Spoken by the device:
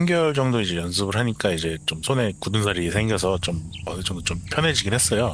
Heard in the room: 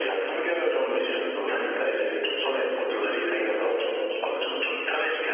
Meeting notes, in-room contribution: none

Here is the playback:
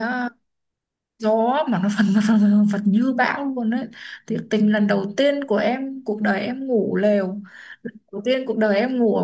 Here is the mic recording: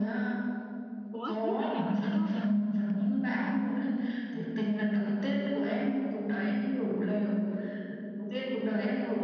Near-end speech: present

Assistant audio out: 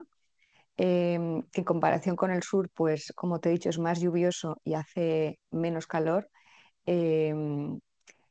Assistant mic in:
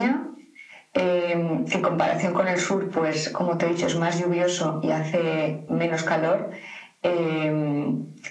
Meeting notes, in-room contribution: none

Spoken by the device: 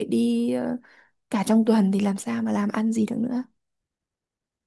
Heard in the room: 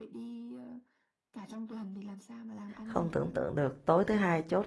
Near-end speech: present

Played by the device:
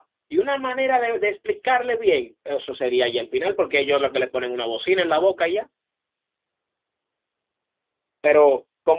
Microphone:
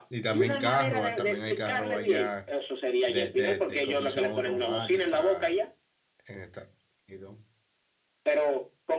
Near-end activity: present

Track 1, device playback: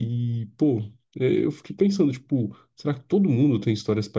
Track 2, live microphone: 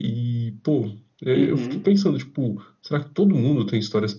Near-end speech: present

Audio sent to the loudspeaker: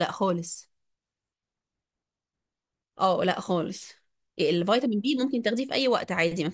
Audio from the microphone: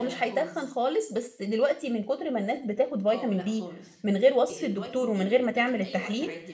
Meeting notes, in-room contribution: present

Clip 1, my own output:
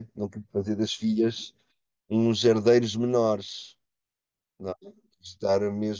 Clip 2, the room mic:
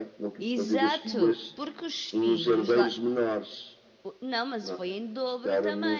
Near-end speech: present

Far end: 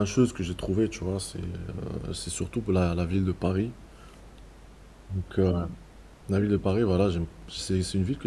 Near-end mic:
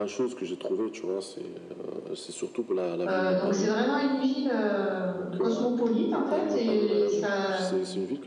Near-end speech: present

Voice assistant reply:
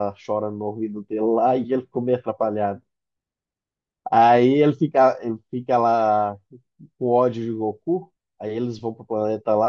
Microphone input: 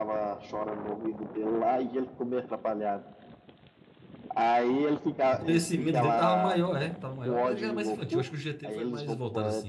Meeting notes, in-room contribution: present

